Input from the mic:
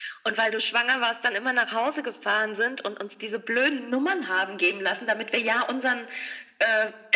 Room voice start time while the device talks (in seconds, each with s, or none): none